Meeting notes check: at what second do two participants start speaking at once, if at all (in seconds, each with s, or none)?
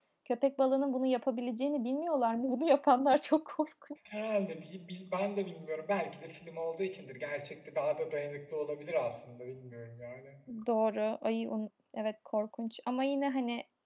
none